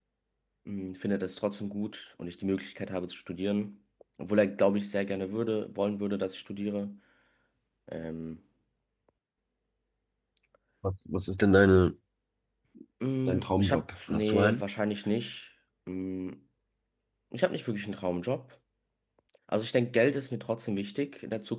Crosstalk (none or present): present